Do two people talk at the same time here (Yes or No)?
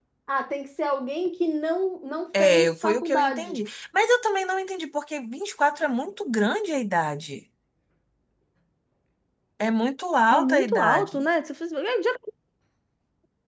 Yes